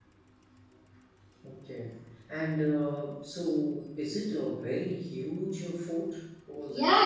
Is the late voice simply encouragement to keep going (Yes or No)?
No